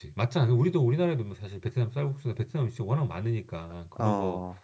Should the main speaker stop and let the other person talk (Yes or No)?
No